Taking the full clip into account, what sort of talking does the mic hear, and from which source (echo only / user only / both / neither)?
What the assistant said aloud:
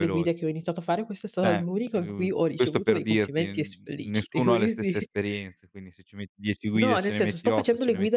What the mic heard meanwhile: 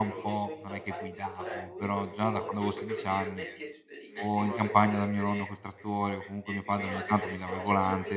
both